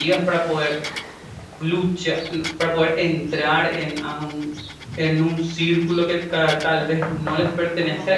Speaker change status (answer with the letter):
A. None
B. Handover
A